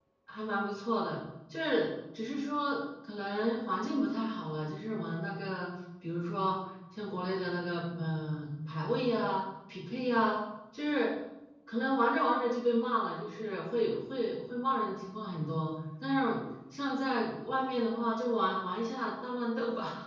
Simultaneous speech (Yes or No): No